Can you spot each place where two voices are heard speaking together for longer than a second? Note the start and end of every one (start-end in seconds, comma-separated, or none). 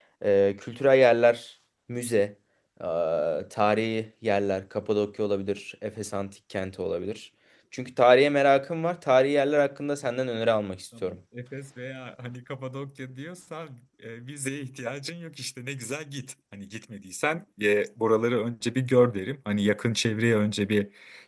none